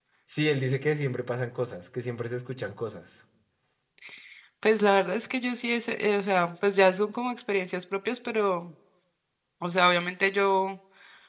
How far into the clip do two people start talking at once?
none

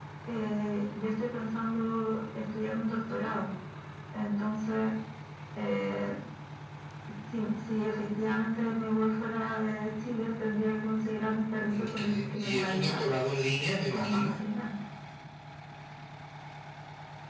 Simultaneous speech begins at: 12 s

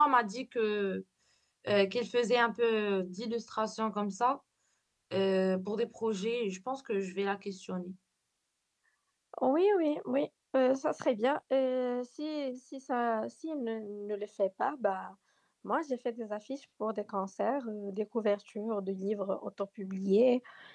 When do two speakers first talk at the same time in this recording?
none

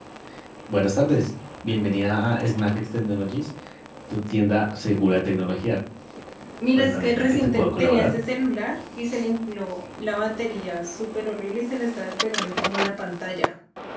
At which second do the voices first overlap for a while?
7 s

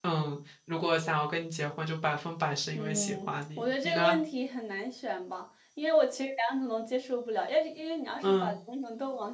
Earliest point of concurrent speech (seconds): 3 s

